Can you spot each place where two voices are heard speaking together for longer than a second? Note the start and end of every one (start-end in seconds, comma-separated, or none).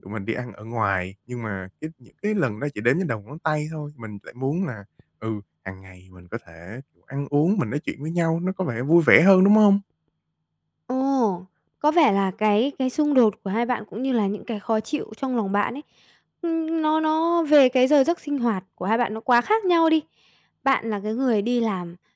none